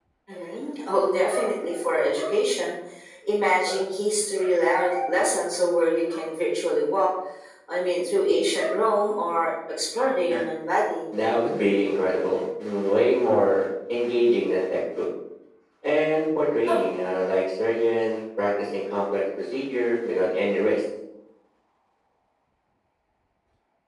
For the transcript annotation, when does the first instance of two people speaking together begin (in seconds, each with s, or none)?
none